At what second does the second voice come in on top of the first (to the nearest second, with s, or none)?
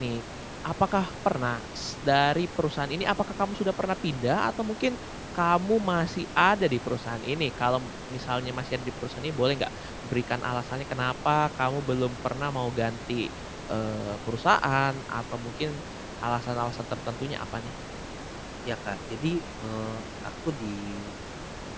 none